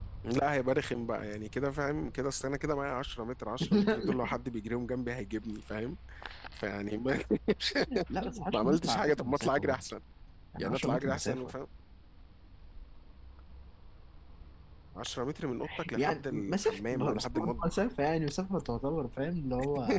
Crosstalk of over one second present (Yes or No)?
Yes